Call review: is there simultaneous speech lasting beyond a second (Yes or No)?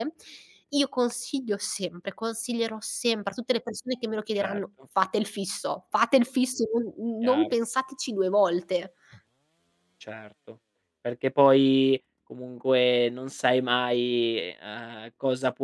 No